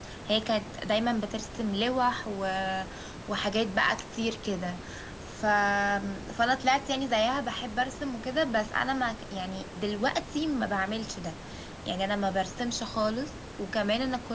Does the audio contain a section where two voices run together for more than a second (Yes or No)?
No